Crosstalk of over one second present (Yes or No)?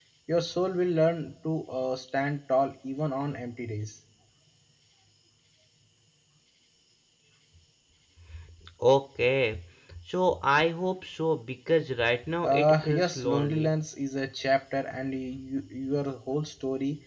Yes